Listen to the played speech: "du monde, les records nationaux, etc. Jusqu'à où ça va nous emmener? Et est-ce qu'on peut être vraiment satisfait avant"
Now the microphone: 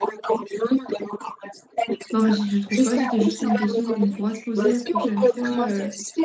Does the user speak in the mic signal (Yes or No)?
Yes